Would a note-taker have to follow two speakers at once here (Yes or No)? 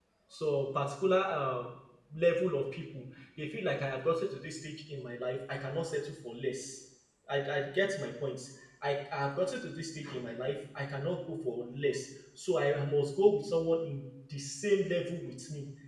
No